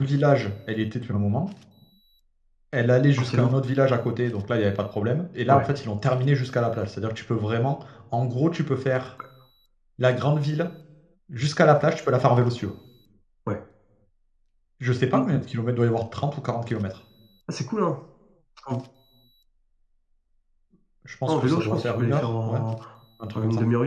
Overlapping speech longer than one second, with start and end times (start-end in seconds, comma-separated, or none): 21.3-22.6